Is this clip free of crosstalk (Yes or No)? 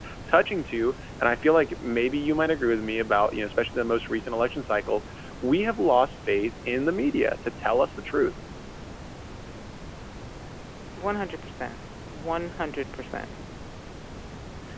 Yes